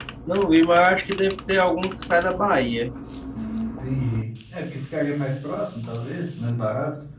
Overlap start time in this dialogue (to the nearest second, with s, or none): none